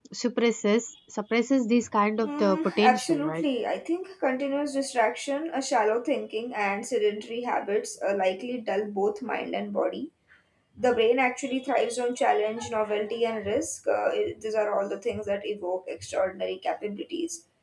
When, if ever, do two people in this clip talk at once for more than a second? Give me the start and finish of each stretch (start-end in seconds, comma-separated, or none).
2.2-3.4